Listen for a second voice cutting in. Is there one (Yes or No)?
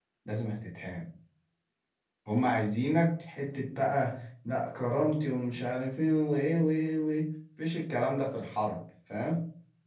No